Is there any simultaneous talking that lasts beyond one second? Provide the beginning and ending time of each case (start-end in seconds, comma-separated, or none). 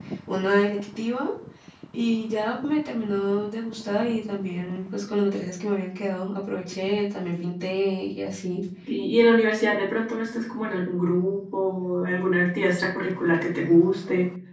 none